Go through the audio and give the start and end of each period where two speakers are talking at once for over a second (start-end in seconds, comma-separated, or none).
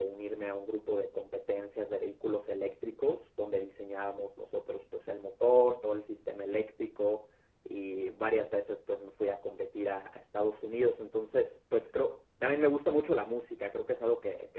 none